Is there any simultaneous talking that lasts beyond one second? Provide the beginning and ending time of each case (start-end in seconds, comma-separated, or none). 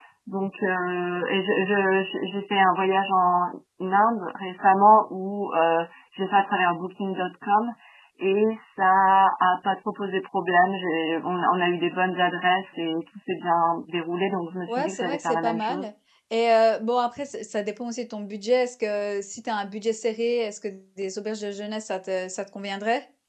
14.7-15.9